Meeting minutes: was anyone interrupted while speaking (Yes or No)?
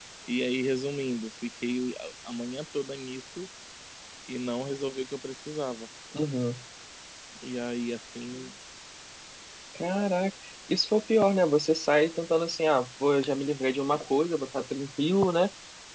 No